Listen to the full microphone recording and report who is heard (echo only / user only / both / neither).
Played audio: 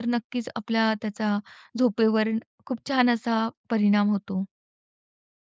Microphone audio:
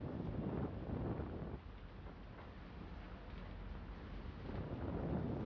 neither